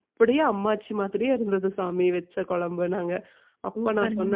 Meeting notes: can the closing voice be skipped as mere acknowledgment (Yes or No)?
Yes